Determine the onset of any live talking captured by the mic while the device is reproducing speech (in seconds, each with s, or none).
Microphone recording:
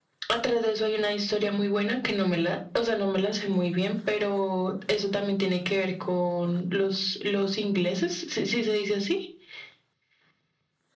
none